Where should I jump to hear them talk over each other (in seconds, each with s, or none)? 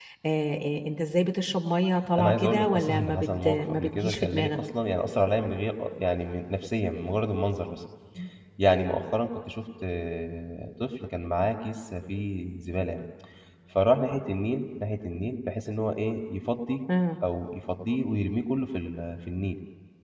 2.2 s